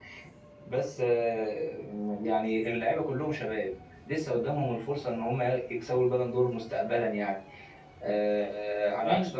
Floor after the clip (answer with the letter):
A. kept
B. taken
A